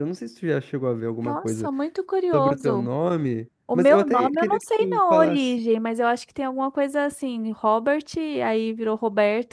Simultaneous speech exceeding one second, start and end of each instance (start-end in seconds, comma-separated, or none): 3.7-5.5